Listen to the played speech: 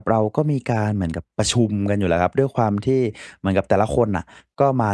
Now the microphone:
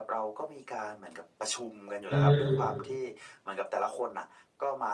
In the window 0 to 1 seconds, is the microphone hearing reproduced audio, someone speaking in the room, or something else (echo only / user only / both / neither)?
echo only